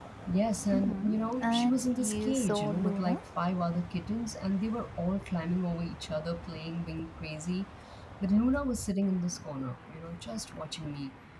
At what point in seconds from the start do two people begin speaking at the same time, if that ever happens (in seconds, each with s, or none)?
0.7 s